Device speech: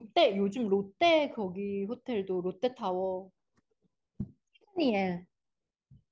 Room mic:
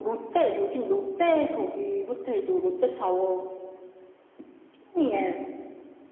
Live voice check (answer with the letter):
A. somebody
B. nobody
B